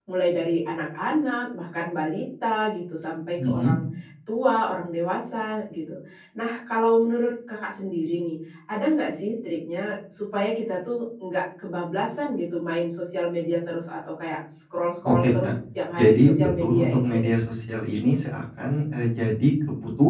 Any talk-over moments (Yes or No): Yes